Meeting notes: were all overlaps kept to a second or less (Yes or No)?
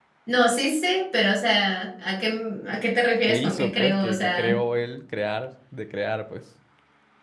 No